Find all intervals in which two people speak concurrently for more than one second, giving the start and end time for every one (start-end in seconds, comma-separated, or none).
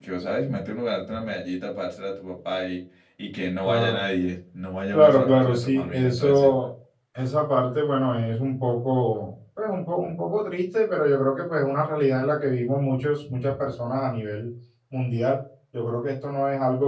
4.9-6.5